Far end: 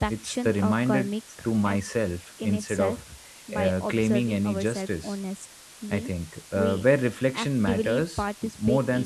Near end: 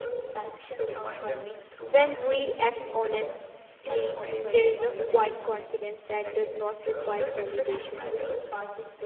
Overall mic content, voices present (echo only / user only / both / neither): both